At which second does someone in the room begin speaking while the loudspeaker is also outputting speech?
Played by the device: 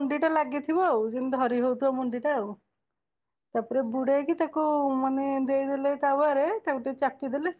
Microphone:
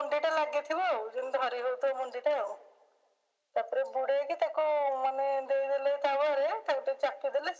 none

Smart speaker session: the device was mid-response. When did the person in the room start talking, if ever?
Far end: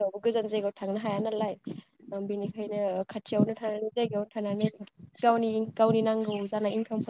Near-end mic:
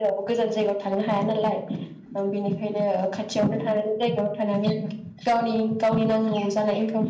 none

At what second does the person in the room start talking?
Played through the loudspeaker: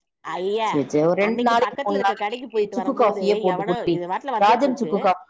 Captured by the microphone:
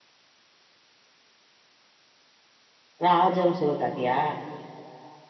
3.0 s

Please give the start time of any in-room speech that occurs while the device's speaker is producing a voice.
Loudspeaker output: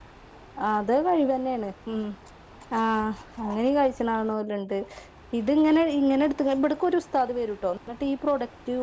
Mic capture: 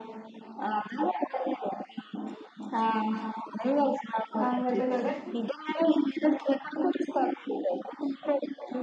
4.4 s

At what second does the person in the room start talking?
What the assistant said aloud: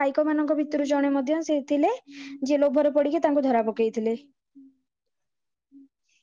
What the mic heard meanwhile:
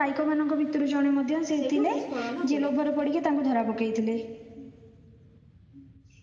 1.6 s

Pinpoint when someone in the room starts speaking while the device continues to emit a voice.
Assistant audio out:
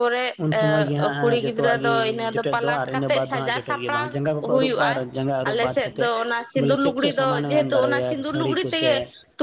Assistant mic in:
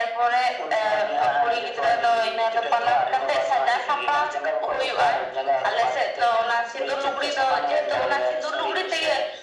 none

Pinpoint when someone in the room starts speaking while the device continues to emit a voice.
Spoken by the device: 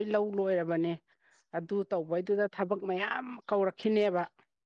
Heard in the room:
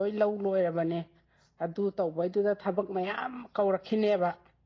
none

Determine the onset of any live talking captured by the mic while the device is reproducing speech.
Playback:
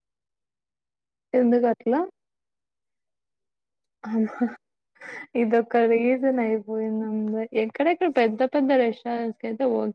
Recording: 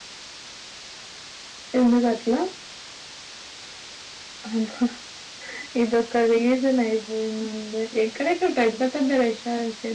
none

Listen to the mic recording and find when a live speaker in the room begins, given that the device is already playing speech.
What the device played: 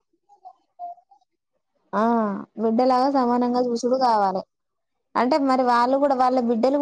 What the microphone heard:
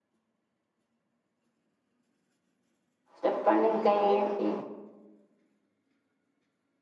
3.2 s

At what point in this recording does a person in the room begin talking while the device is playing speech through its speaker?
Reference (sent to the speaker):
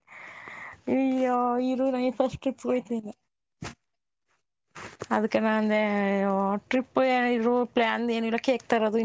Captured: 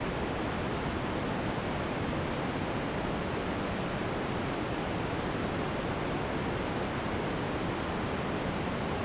none

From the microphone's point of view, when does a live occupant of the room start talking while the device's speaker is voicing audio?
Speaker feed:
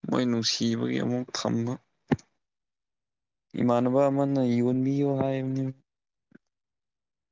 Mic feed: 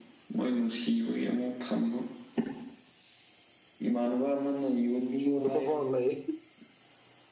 5.2 s

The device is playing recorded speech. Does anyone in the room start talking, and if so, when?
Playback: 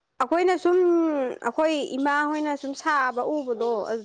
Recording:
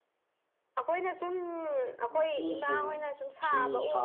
2.1 s

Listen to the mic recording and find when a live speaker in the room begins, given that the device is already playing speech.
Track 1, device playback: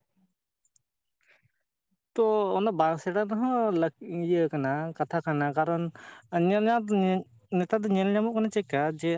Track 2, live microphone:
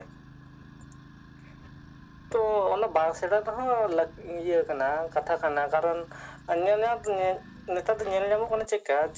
none

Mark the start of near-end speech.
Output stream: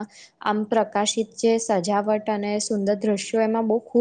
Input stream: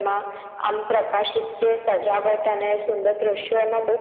none

